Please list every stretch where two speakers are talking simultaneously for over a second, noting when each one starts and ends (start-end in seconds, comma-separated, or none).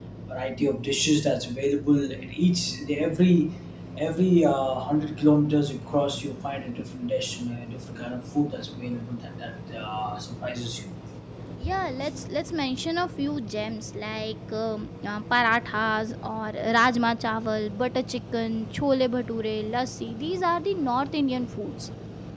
none